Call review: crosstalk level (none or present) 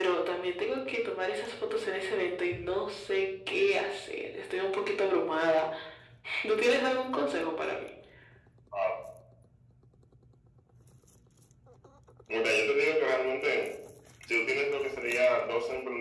none